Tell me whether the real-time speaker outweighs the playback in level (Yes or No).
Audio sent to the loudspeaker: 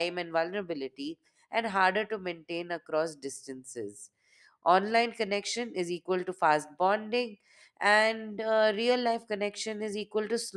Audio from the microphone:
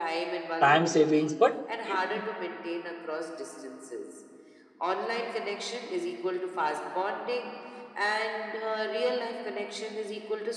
Yes